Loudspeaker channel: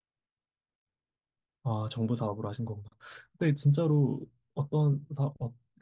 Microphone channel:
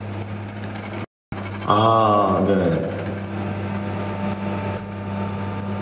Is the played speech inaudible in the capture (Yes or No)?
Yes